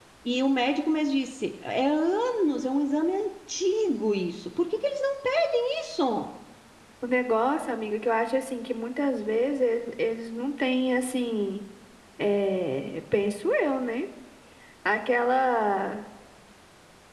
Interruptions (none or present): none